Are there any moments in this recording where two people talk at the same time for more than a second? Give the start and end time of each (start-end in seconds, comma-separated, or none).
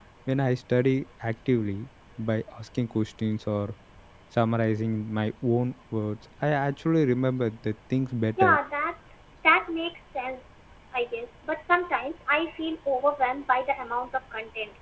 none